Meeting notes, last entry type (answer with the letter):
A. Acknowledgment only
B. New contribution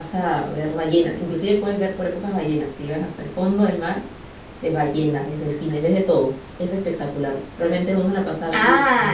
B